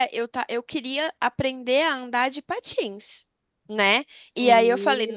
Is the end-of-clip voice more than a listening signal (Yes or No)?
No